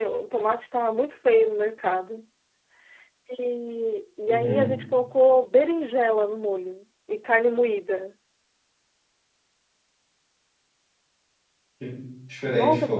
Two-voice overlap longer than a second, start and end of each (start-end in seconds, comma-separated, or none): none